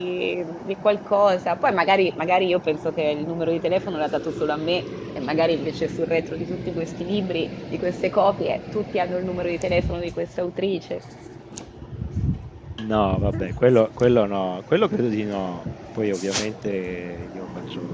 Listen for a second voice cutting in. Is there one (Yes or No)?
No